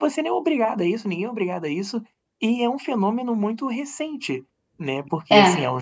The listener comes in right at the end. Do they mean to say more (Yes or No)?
No